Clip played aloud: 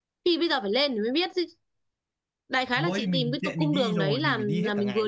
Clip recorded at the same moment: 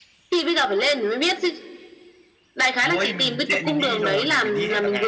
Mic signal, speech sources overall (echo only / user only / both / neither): echo only